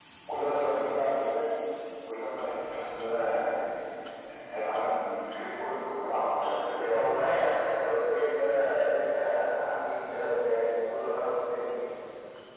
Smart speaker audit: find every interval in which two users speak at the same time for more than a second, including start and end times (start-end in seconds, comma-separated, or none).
none